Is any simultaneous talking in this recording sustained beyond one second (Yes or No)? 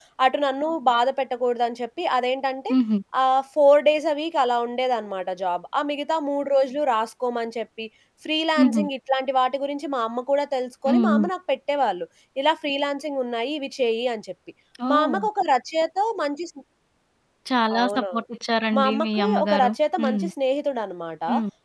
Yes